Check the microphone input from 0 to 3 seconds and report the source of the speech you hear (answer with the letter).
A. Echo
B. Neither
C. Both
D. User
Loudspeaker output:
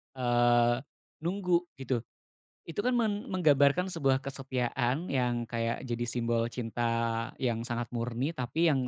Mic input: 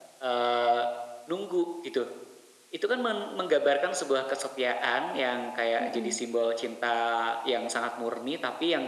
A